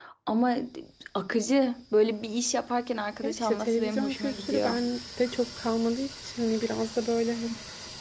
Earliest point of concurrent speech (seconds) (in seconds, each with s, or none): 3.2 s